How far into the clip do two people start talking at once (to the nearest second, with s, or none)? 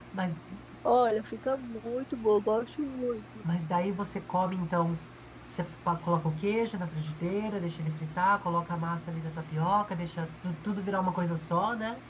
none